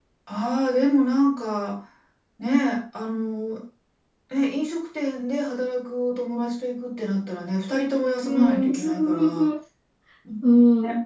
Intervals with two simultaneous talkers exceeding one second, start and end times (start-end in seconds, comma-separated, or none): 8.2-9.5